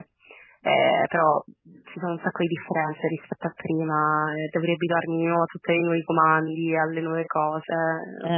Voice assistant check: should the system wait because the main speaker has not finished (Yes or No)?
No